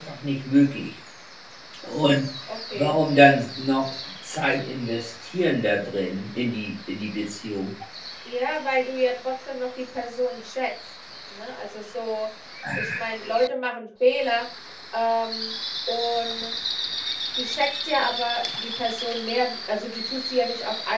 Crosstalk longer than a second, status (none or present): none